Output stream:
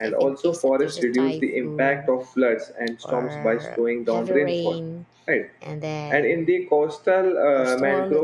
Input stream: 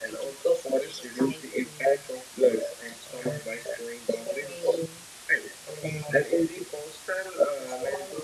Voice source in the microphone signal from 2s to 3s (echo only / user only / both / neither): echo only